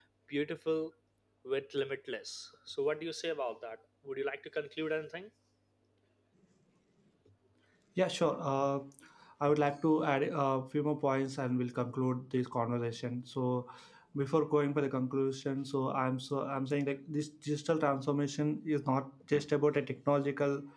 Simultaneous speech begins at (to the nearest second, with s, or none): none